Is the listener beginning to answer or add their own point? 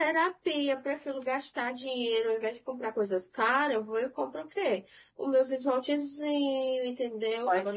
Yes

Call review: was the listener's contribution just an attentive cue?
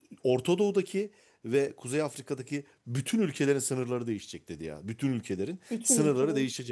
Yes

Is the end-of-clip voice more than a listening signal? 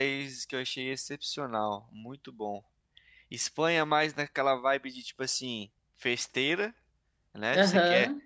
No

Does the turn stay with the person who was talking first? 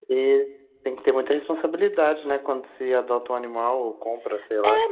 No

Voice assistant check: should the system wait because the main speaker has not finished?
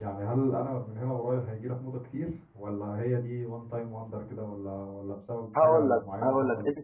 No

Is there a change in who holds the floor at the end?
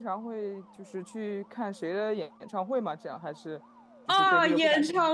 Yes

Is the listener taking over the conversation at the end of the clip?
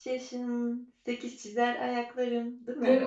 Yes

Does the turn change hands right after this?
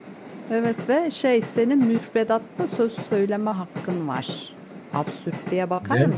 Yes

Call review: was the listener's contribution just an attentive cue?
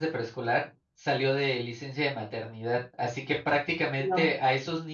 Yes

